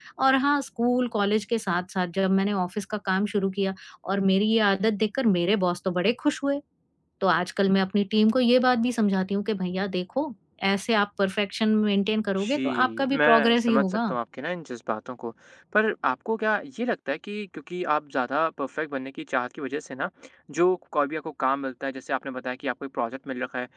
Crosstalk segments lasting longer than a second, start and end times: 12.4-14.1

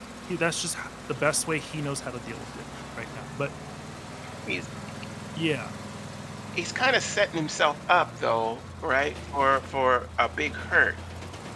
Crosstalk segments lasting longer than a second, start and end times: none

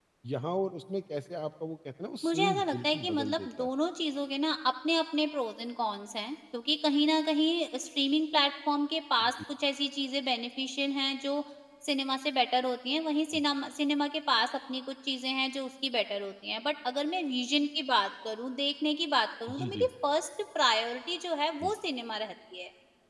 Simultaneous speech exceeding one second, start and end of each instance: 2.2-3.7

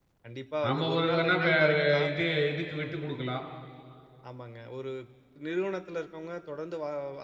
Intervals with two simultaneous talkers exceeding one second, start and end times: 0.6-2.1

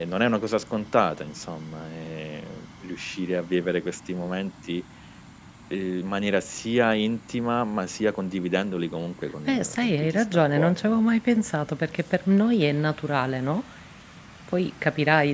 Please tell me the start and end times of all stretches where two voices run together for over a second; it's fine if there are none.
9.5-10.9

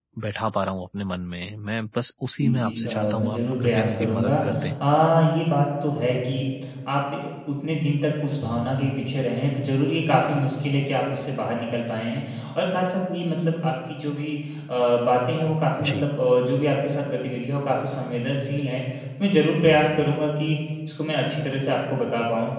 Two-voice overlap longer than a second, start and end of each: 2.4-4.3

